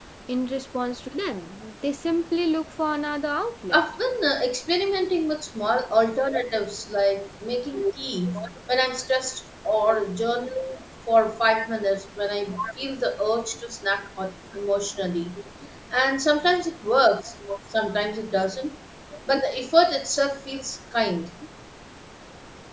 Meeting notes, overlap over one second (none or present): none